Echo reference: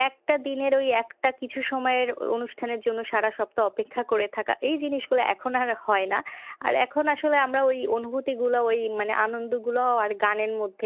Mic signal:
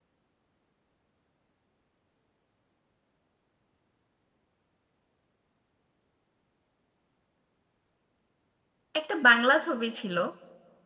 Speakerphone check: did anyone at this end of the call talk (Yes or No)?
Yes